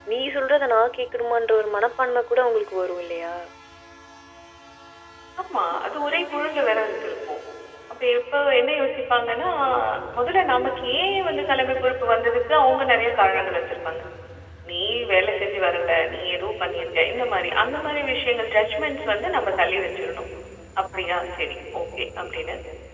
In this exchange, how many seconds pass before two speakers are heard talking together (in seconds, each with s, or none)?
none